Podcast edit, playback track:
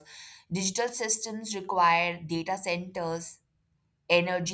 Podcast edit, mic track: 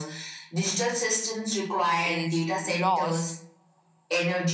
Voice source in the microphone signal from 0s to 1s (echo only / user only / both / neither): echo only